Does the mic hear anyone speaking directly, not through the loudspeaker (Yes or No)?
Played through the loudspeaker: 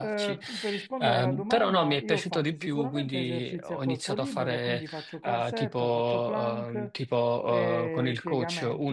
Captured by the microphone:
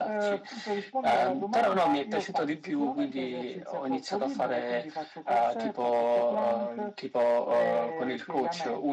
No